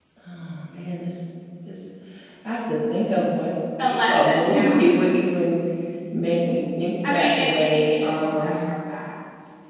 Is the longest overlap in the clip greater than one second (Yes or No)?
Yes